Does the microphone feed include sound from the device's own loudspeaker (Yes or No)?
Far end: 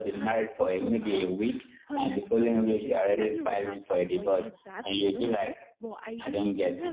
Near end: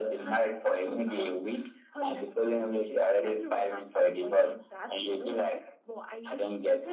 Yes